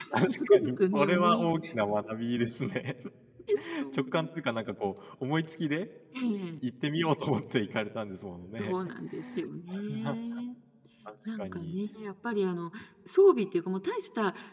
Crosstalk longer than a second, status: present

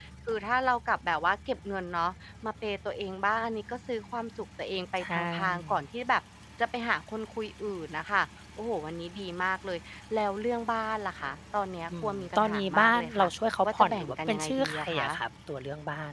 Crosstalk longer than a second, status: present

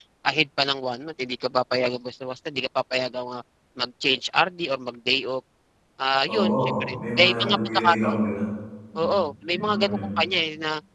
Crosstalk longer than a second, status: present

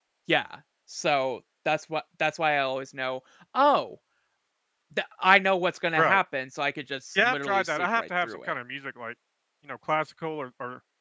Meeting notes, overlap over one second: present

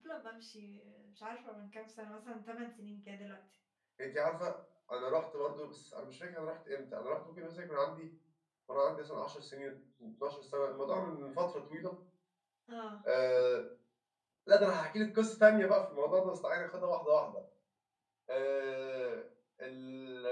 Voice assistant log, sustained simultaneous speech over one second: none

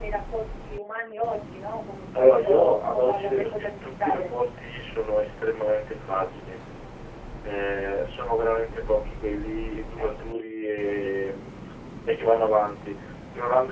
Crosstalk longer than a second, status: present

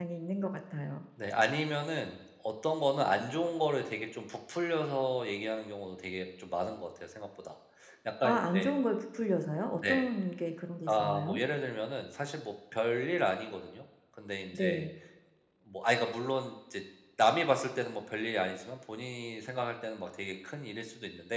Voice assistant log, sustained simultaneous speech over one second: none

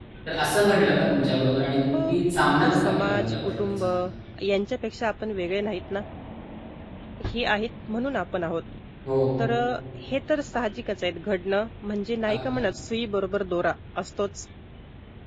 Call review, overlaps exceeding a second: present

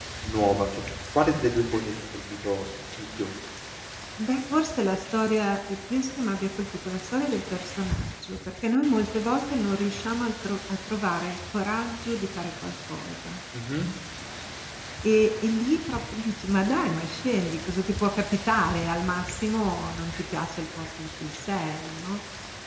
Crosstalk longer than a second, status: none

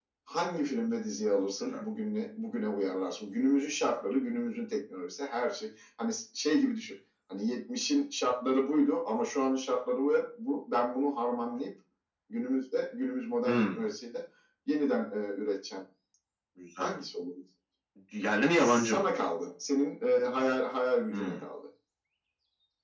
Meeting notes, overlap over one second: none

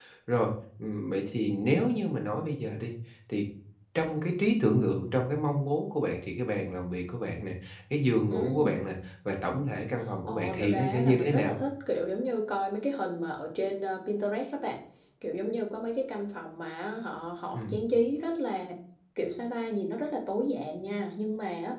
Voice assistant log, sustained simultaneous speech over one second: present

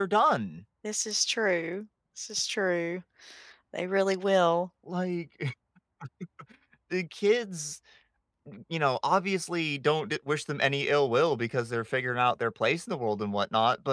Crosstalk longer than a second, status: none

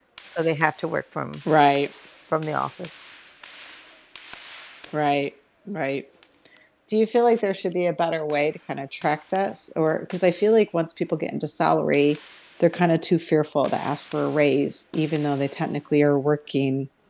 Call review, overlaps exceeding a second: none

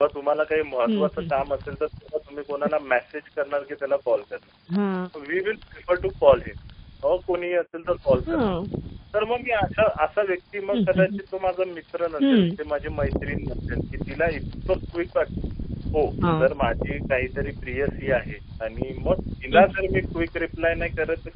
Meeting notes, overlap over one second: none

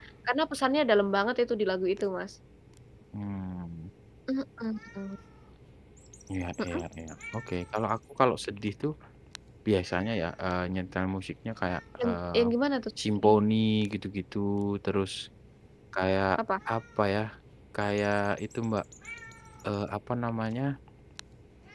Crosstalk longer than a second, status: none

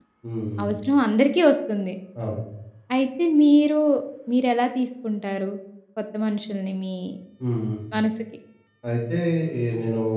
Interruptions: none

